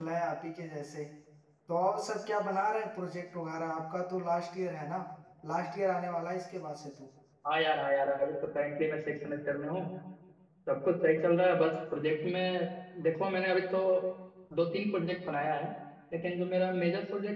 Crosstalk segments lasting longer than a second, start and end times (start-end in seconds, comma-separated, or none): none